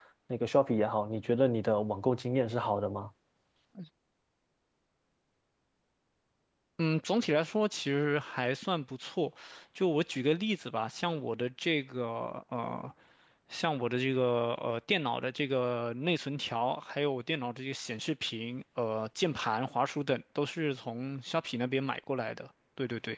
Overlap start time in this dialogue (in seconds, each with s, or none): none